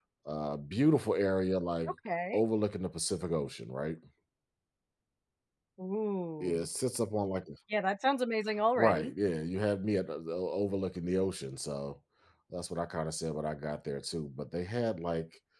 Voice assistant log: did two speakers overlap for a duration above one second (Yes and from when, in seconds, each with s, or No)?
No